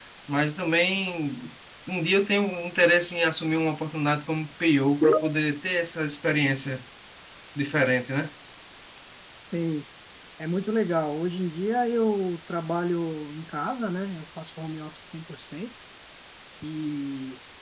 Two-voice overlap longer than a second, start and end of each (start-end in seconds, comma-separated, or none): none